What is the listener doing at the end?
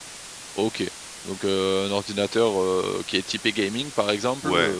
listening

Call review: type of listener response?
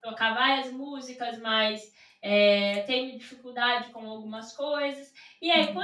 listening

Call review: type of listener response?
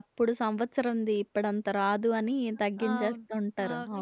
taking over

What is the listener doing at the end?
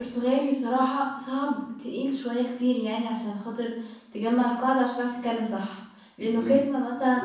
taking over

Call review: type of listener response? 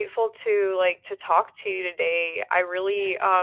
listening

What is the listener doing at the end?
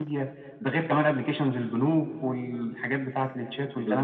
taking over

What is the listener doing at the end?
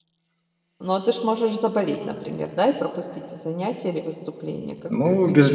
taking over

